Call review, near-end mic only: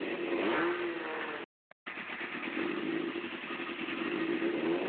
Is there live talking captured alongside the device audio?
No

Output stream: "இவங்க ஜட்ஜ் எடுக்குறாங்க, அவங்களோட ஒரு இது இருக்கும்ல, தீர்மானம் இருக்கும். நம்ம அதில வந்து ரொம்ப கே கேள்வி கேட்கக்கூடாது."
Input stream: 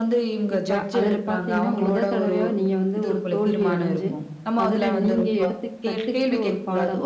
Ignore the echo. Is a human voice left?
Yes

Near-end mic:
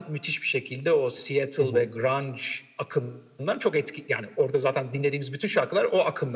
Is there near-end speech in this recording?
Yes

